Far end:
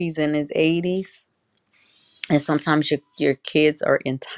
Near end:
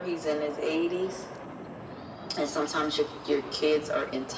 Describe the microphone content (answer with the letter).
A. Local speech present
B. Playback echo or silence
B